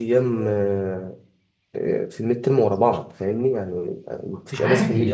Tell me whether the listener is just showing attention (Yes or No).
No